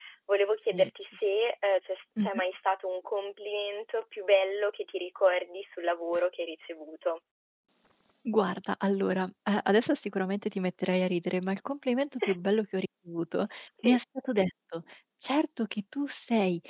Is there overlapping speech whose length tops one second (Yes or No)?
No